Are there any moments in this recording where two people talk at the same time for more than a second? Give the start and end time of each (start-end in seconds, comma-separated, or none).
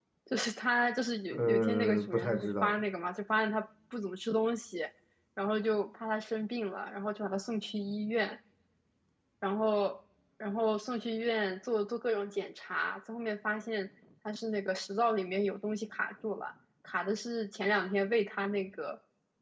1.3-2.8